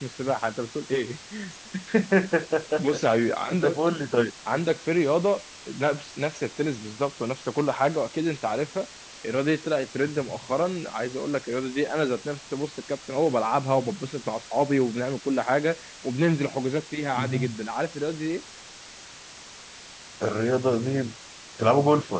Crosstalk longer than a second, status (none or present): none